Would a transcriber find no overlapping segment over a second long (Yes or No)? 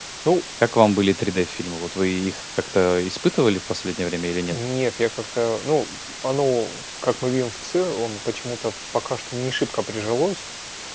Yes